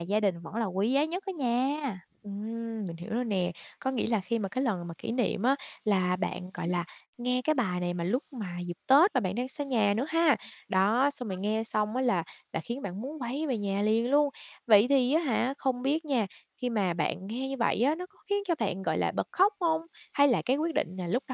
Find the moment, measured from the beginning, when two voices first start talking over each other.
none

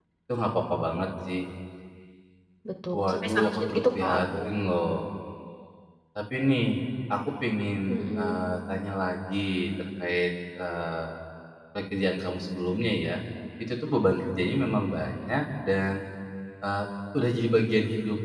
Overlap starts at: 3.0 s

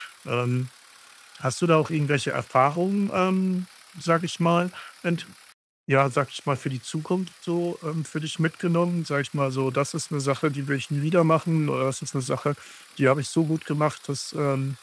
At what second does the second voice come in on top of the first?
none

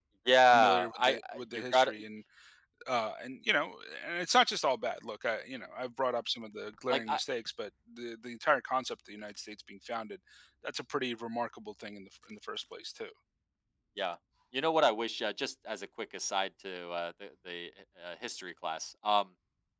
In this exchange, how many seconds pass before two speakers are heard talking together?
0.5 s

